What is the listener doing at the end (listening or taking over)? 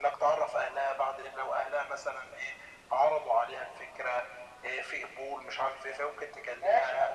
taking over